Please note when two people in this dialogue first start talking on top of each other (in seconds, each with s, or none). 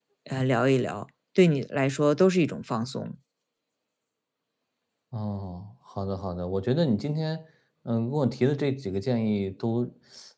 none